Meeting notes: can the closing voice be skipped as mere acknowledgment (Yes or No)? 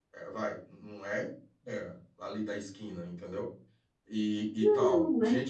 No